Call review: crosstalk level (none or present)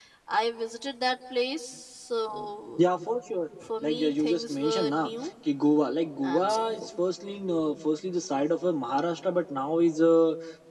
present